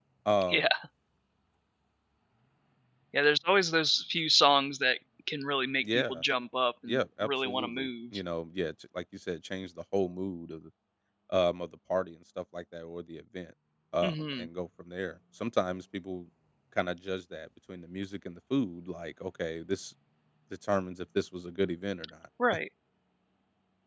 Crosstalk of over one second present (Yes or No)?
Yes